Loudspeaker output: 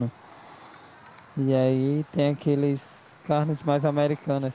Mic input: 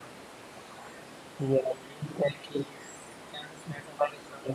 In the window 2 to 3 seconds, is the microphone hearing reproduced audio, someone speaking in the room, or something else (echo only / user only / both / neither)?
echo only